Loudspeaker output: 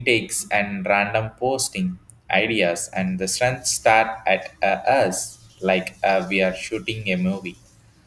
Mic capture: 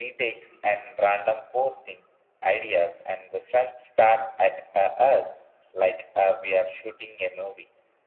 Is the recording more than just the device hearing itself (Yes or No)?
No